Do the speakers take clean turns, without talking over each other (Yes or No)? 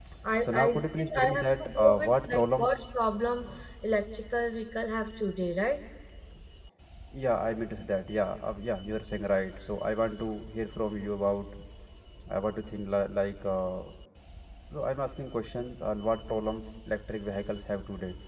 No